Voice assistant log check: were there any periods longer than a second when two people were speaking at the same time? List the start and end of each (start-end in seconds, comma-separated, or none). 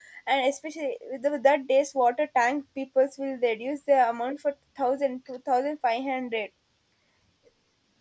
none